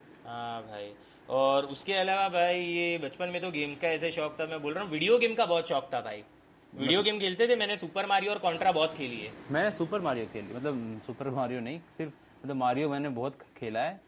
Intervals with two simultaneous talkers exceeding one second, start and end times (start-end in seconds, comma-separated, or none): none